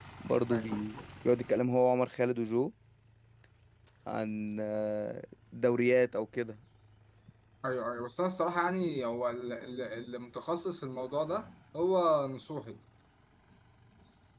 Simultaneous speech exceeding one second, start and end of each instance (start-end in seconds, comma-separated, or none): none